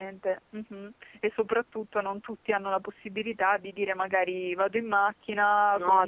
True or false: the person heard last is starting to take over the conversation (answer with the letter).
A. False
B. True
A